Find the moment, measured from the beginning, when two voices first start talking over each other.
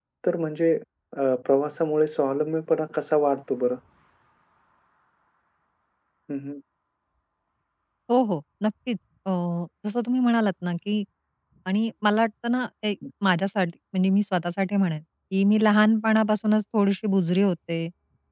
none

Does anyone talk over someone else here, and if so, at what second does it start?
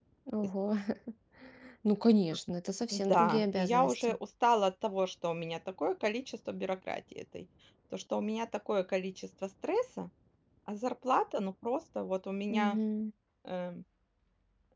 2.9 s

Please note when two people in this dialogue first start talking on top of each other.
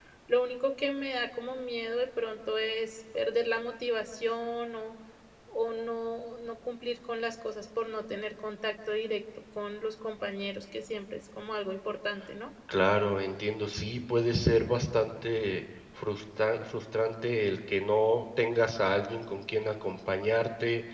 none

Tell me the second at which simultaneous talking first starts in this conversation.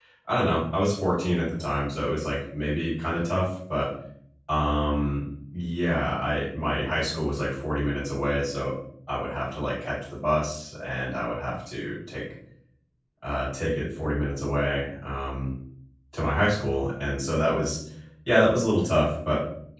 none

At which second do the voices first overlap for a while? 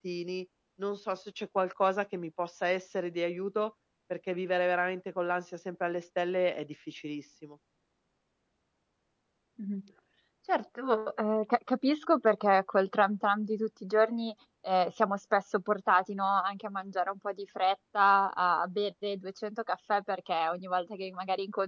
none

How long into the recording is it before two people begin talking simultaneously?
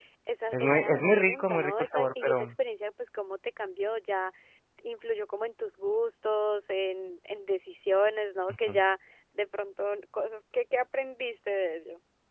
0.5 s

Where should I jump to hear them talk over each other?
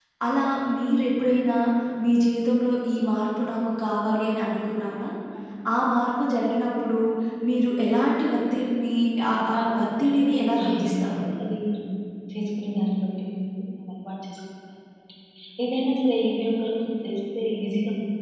9.3 s

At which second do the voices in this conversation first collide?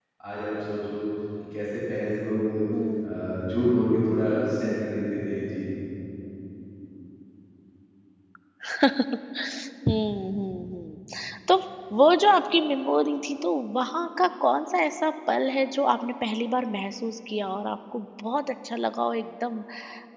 none

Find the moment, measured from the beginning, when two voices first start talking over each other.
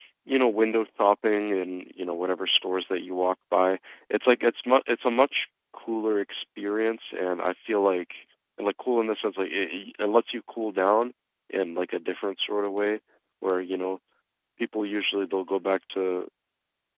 none

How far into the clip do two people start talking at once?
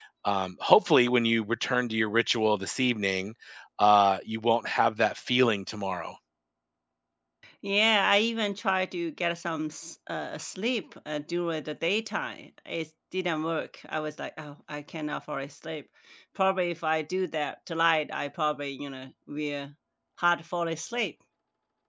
none

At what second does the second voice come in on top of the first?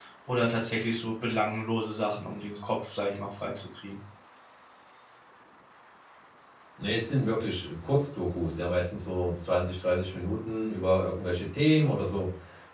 none

